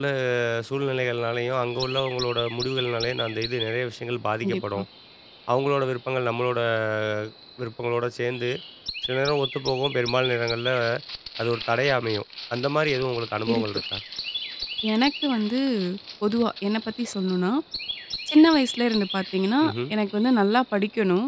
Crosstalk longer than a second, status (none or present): none